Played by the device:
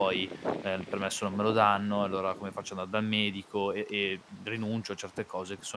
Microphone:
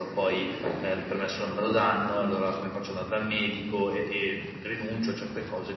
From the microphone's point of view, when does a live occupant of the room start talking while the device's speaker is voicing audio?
none

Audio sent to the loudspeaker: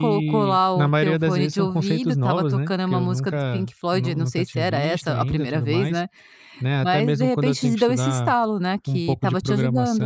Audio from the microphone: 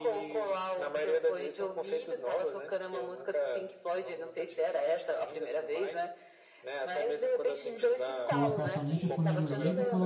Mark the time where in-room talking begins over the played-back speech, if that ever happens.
8.2 s

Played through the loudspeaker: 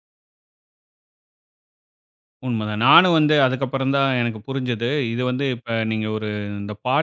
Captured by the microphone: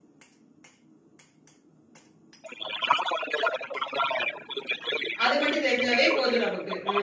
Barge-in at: 5.2 s

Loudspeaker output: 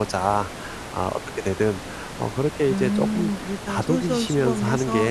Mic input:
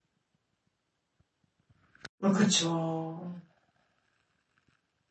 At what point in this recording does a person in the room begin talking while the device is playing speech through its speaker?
2.2 s

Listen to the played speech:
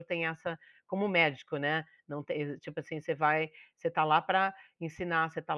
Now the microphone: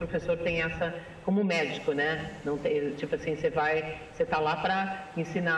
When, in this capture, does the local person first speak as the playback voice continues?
none

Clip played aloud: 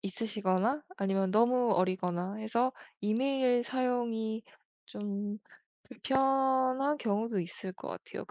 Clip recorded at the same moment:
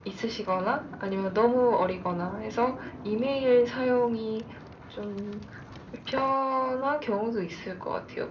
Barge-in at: none

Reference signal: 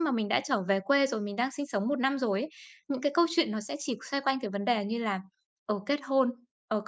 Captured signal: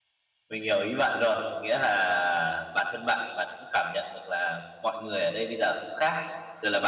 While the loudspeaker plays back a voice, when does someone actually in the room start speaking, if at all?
0.5 s

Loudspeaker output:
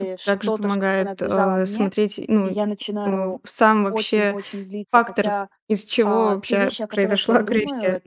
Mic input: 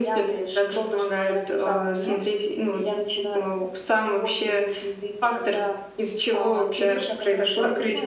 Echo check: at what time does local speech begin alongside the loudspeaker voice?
none

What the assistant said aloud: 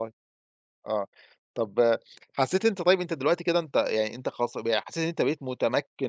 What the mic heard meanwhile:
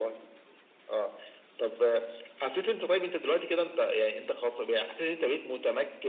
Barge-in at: none

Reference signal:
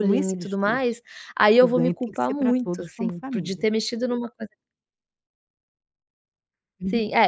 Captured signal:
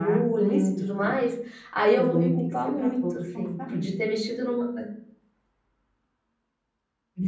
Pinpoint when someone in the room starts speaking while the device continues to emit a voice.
none

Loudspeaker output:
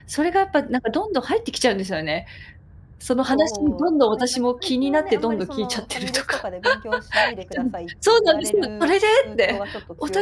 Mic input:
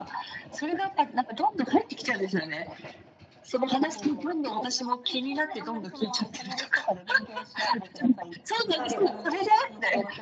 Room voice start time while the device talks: 8.7 s

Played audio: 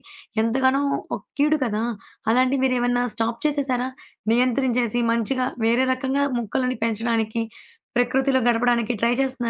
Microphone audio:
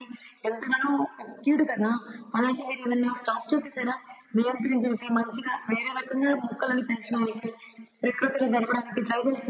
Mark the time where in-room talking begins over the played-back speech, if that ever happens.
none

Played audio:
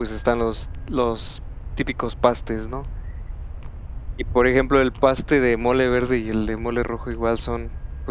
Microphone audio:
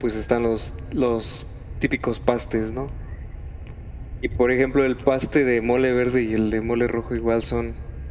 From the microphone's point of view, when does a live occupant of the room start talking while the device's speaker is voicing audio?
none

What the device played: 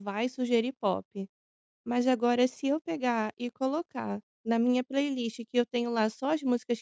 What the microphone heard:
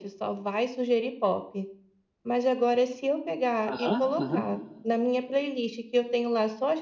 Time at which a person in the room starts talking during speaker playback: 3.7 s

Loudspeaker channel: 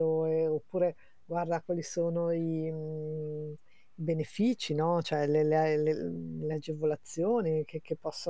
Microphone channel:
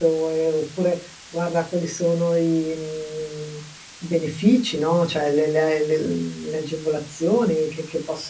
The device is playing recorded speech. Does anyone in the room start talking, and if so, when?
none

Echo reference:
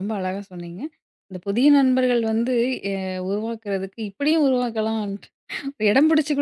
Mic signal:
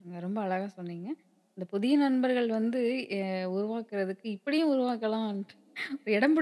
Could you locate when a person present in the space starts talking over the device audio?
none

